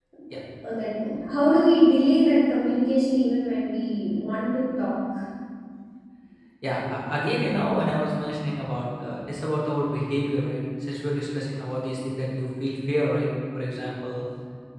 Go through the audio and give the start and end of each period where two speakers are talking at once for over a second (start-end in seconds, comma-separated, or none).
none